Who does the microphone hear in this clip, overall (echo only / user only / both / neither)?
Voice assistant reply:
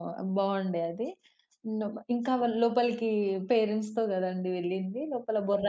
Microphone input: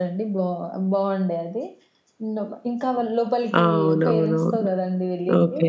both